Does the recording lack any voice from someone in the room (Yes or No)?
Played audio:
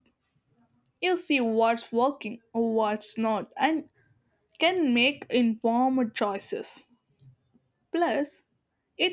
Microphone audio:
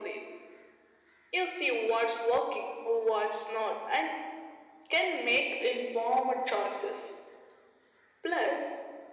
Yes